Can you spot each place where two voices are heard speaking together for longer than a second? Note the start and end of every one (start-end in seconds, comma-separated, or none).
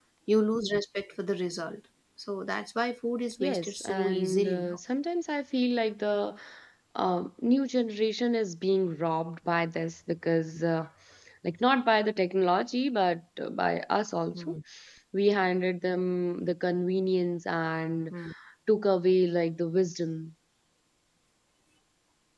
3.4-4.8